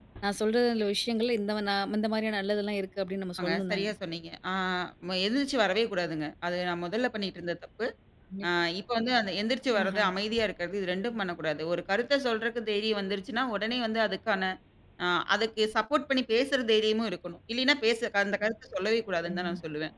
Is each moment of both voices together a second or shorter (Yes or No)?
Yes